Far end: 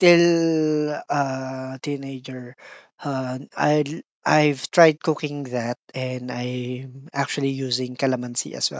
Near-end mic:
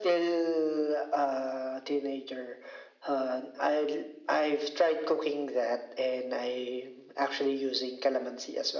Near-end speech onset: none

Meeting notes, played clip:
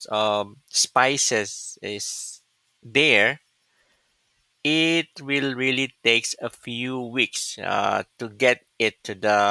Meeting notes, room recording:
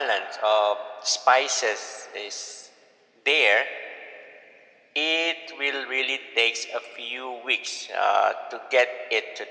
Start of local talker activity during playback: none

